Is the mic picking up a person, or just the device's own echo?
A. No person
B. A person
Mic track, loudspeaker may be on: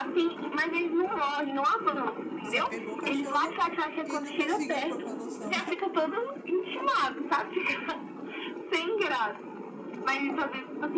B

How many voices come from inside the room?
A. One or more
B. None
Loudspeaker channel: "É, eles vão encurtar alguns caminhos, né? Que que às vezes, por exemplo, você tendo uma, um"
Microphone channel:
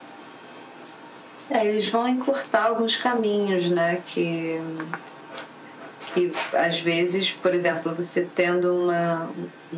B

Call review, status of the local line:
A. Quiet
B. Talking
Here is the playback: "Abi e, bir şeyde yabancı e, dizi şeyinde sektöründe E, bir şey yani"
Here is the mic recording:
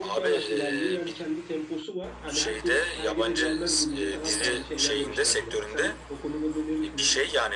B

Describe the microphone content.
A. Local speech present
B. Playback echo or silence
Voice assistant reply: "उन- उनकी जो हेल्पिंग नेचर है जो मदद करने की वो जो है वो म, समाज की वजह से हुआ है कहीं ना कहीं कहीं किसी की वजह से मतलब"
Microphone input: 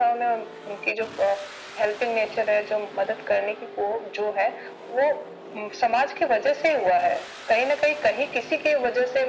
B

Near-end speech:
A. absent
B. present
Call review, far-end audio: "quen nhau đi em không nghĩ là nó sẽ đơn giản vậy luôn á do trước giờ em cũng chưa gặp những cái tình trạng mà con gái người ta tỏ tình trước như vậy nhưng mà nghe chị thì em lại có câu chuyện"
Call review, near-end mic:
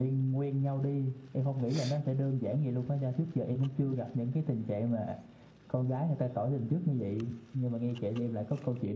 A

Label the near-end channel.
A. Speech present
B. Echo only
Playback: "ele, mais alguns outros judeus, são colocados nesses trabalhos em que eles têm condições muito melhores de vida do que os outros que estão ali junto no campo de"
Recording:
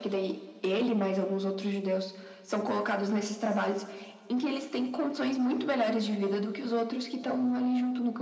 B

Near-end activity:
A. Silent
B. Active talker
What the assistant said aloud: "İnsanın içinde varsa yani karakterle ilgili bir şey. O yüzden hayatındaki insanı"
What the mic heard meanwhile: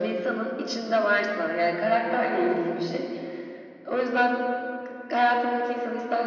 A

